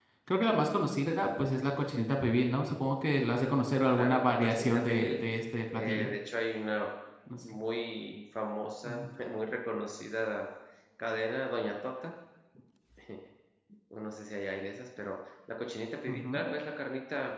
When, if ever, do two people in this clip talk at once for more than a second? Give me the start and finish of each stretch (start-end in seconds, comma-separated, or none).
3.9-5.2